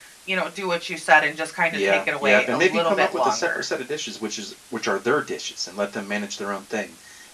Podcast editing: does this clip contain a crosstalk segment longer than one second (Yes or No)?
Yes